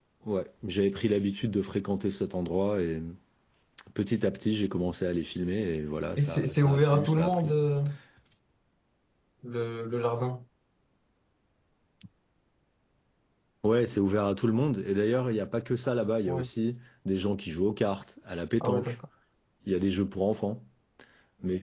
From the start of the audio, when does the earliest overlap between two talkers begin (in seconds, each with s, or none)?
6.2 s